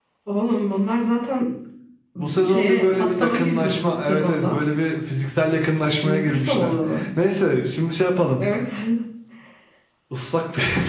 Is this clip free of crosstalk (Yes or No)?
No